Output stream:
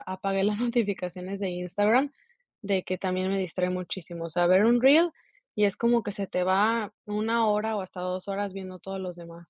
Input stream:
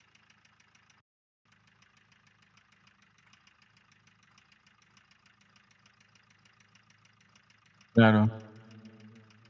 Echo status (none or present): none